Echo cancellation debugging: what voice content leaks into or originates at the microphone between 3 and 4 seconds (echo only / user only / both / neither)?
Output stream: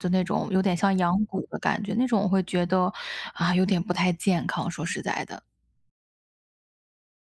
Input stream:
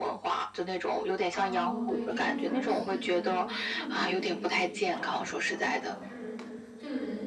both